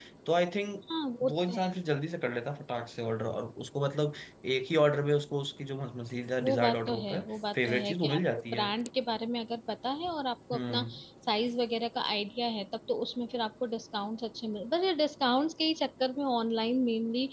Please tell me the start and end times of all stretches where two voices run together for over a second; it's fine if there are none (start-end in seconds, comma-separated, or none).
6.4-8.7